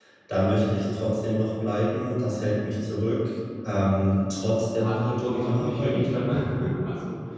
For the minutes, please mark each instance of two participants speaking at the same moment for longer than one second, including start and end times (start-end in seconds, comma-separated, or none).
4.7-6.1